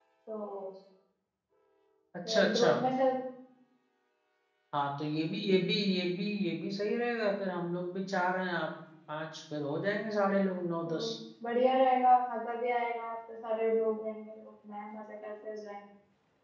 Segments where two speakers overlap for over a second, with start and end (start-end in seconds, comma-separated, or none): none